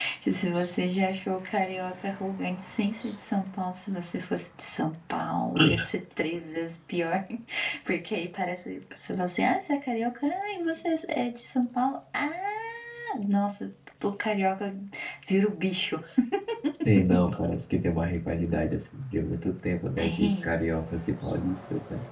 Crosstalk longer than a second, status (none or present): none